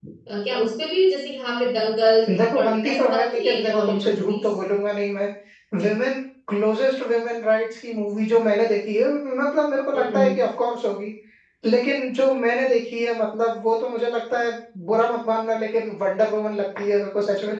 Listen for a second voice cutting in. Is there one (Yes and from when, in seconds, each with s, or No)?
Yes, from 2.4 s